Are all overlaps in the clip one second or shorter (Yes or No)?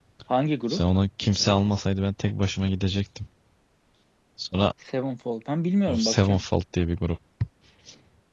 Yes